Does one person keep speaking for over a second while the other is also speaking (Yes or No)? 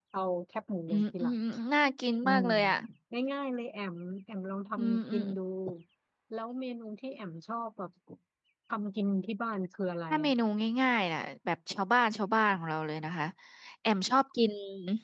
No